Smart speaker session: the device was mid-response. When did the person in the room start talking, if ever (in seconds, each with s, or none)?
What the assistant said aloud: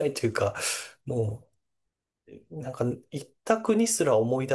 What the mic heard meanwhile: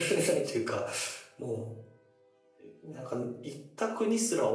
none